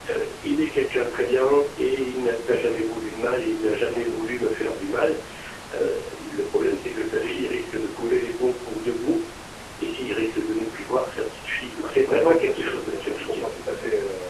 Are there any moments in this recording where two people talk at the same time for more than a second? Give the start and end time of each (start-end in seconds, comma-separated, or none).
12.2-13.4